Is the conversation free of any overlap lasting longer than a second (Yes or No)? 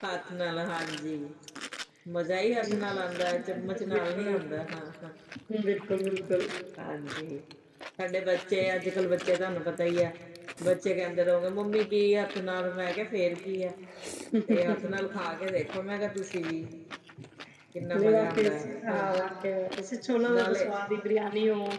No